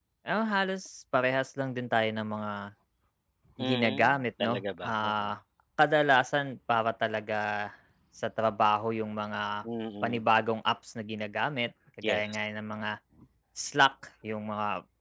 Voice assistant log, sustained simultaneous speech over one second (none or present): present